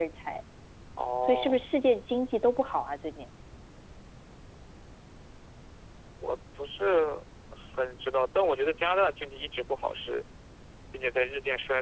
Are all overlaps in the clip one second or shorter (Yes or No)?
Yes